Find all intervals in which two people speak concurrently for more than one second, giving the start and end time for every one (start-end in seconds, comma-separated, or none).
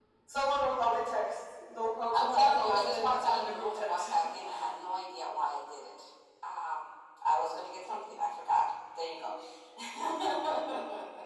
2.1-4.1